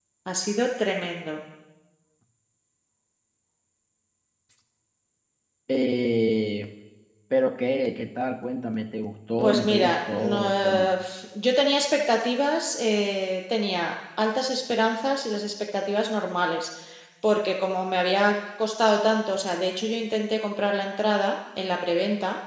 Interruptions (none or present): present